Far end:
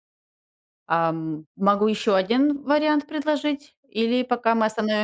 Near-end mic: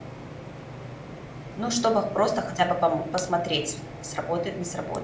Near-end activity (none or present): present